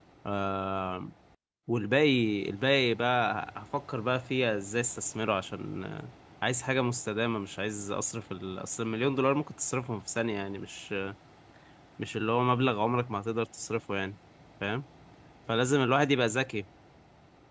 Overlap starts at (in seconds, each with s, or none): none